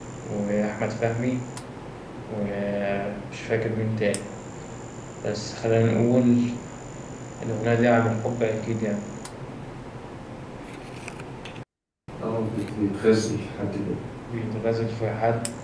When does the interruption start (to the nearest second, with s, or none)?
none